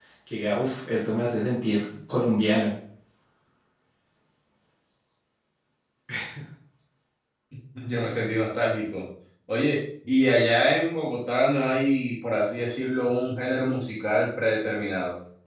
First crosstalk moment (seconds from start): none

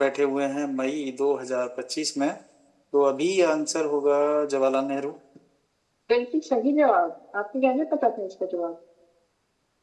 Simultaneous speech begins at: none

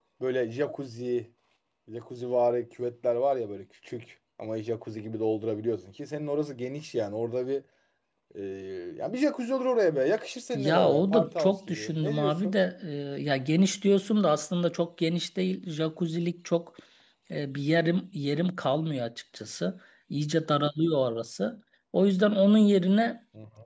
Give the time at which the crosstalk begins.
11 s

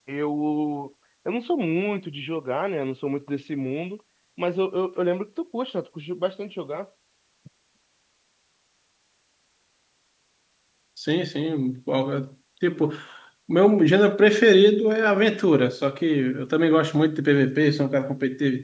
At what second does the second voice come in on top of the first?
none

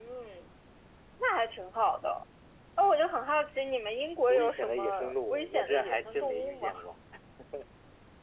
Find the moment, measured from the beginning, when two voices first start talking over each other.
4 s

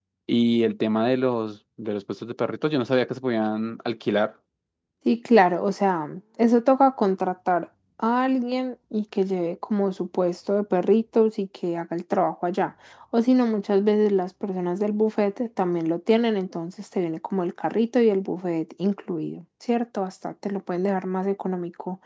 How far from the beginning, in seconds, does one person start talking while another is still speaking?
none

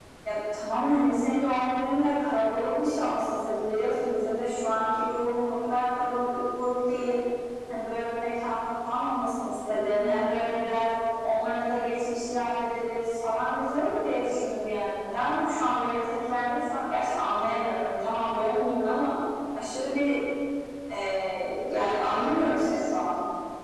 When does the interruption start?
none

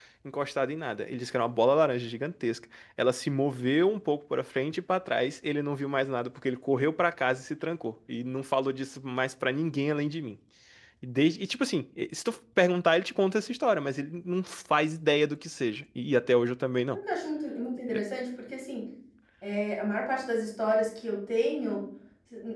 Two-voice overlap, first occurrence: none

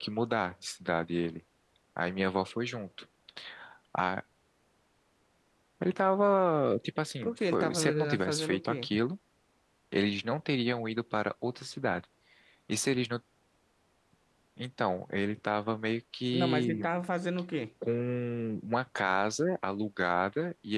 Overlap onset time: 7 s

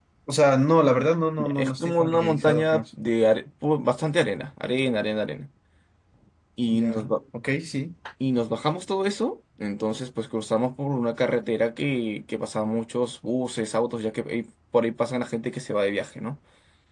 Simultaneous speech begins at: 1 s

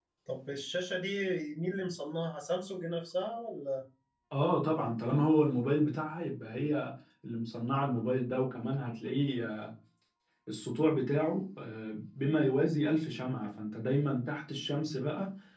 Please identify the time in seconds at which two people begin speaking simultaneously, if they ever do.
none

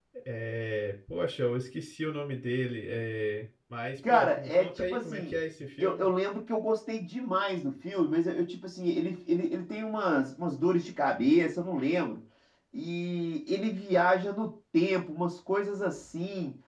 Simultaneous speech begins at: 4 s

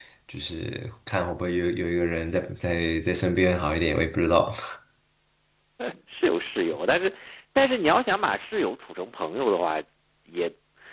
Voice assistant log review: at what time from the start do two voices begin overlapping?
none

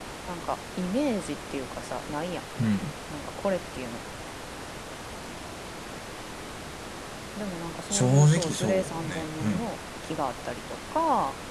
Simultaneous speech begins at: 8 s

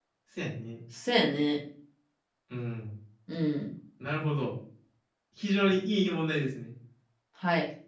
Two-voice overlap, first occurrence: none

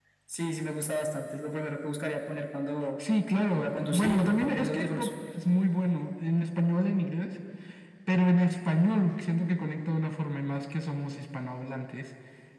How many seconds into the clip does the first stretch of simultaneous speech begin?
4 s

